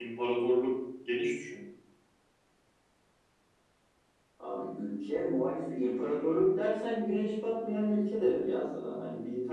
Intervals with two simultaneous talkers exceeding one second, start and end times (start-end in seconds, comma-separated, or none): none